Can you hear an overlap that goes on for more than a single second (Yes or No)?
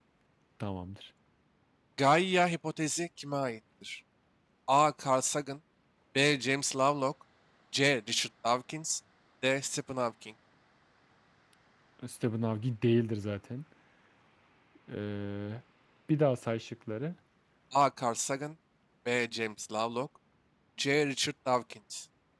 No